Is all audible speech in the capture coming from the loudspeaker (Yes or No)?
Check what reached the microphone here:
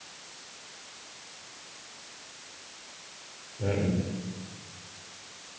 No